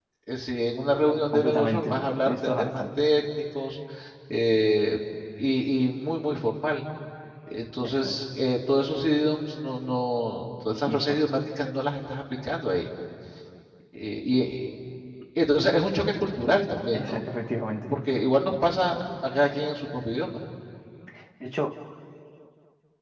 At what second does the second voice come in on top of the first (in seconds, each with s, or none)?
1.3 s